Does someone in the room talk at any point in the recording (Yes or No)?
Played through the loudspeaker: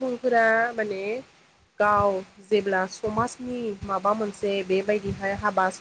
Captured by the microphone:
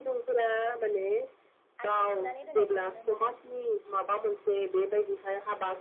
Yes